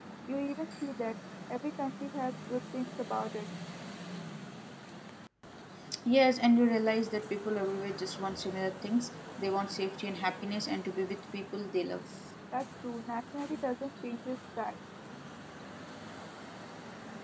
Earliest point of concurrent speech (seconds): none

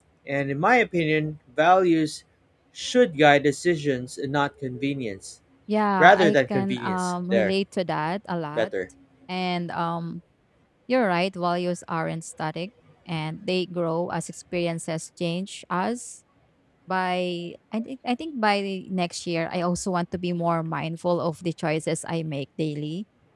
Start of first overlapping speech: 6.0 s

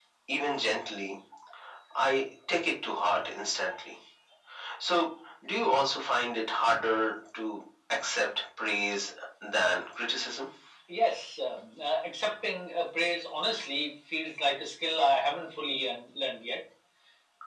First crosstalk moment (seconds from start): none

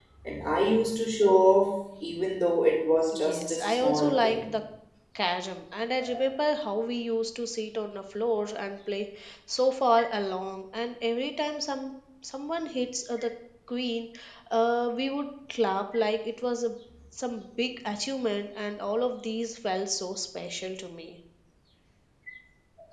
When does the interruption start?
3.1 s

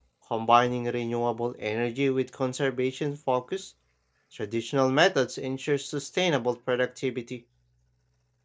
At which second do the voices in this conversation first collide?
none

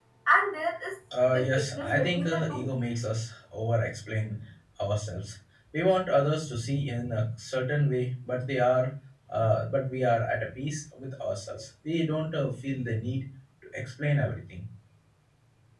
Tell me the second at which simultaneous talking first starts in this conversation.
1.3 s

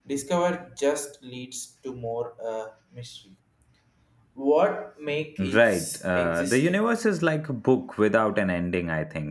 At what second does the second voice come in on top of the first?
5.4 s

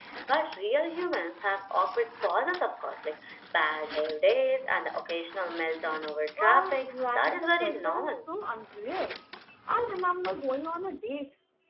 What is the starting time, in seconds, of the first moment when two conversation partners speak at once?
6.4 s

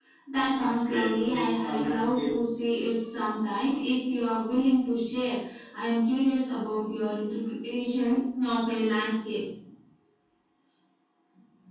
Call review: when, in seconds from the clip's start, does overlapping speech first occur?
0.5 s

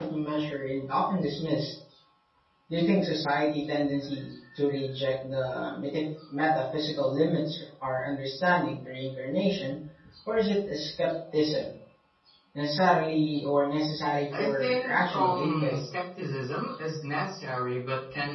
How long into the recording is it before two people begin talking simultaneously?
14.3 s

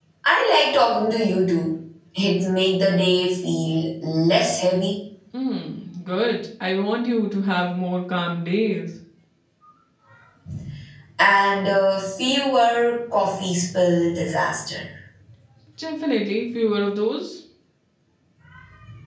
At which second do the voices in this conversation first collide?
none

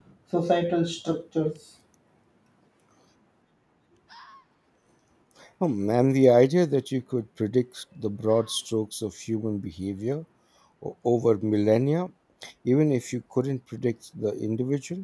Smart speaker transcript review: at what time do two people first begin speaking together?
none

